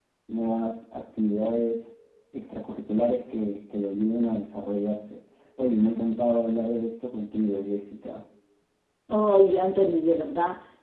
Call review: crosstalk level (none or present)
none